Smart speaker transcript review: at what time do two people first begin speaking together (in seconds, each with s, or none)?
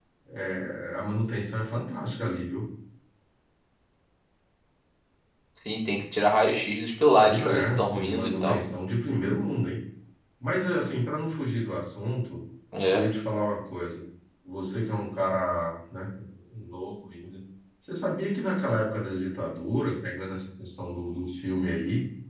7.2 s